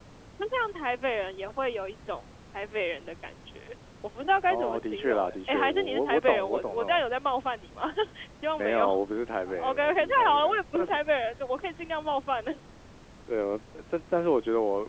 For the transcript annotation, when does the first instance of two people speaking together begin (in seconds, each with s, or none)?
4.5 s